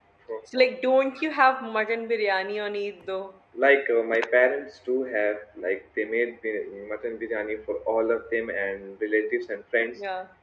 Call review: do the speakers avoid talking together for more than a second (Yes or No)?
Yes